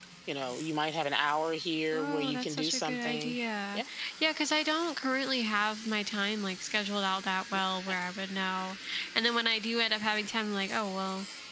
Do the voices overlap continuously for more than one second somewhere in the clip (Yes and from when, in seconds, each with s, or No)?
Yes, from 1.9 s